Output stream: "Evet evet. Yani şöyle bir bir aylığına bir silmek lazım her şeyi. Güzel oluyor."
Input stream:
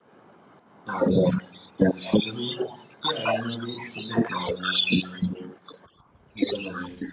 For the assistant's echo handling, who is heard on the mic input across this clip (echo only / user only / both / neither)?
echo only